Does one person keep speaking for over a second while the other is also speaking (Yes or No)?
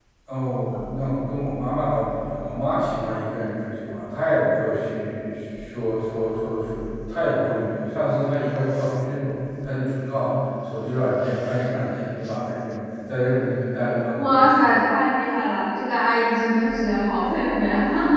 No